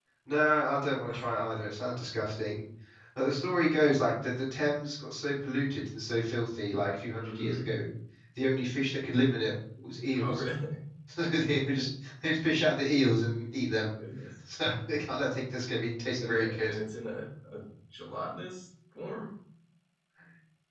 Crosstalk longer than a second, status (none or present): none